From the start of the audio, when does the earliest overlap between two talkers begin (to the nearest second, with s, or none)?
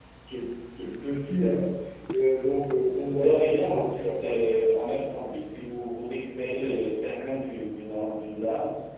3 s